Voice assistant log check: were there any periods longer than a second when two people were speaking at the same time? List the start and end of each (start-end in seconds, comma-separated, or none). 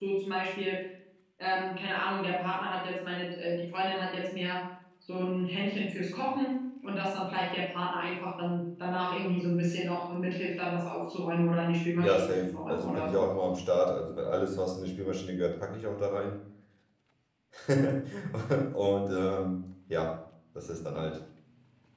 12.0-13.3